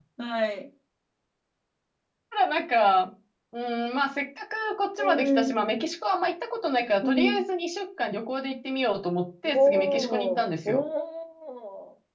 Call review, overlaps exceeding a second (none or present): present